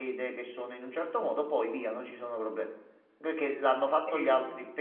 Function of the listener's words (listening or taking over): listening